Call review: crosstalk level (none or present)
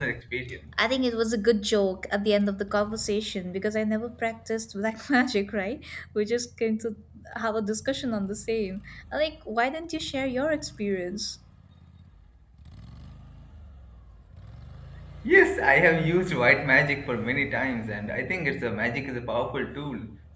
none